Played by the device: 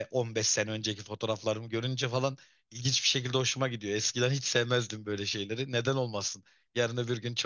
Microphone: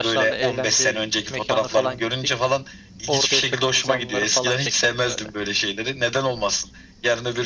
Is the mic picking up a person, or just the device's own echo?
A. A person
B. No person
A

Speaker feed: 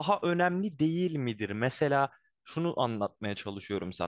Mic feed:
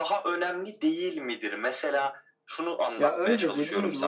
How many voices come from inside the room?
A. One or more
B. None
A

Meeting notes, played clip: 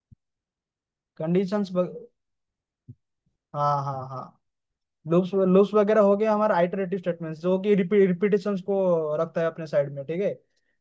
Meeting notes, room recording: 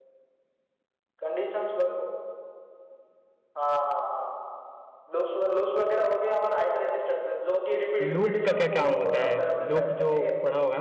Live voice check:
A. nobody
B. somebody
B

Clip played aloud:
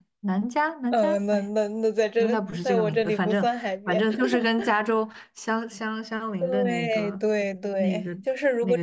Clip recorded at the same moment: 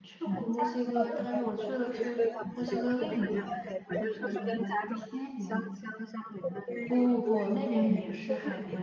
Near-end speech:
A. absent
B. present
B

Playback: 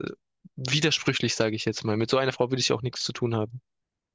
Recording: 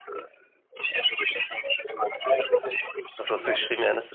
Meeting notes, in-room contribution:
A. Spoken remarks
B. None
A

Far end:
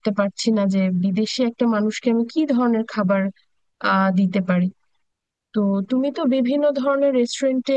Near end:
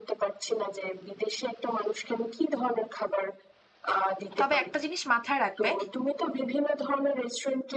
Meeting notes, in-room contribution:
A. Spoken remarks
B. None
A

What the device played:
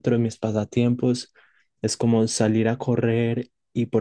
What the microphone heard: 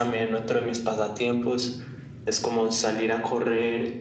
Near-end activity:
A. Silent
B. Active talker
A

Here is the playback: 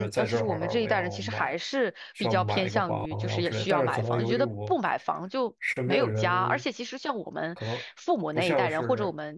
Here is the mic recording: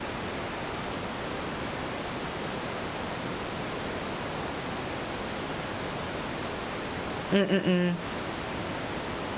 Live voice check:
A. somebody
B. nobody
A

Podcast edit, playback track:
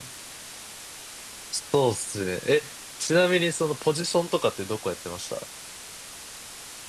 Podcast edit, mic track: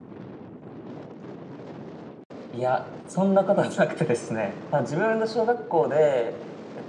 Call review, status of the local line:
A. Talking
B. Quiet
A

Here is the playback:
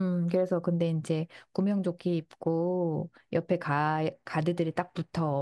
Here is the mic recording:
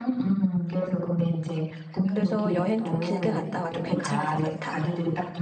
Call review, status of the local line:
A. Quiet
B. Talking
B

